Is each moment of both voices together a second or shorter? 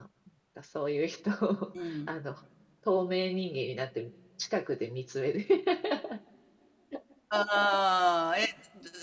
Yes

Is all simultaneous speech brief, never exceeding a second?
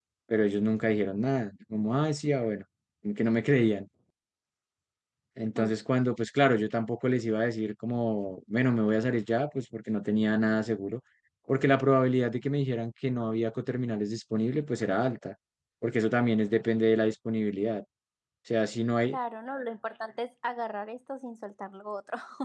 Yes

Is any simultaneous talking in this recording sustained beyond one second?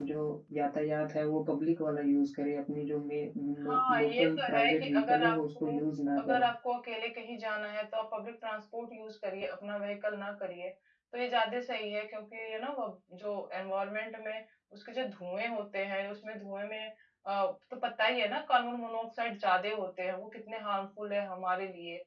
Yes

